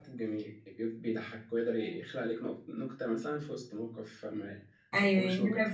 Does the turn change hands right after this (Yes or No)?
Yes